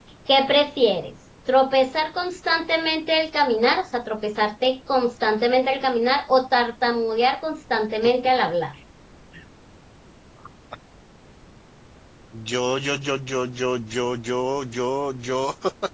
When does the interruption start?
none

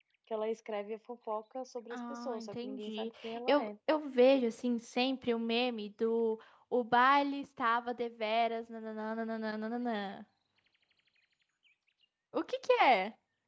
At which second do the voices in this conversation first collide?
1.9 s

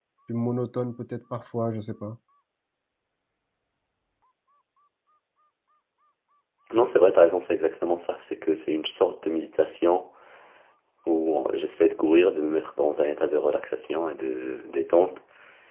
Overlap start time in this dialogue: none

